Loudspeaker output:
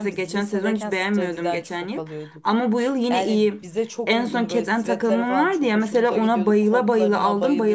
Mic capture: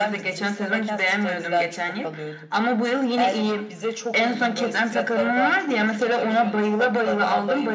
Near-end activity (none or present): none